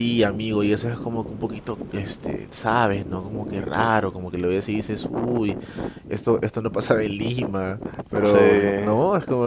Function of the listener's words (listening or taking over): listening